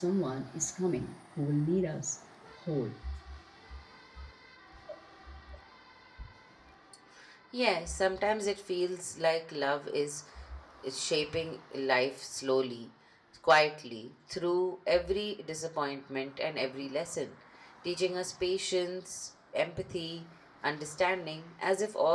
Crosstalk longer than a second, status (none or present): none